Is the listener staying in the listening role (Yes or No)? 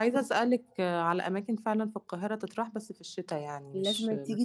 No